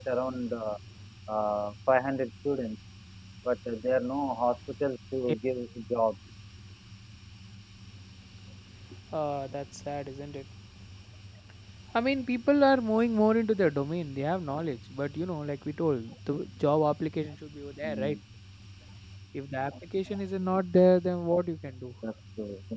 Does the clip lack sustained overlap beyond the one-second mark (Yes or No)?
Yes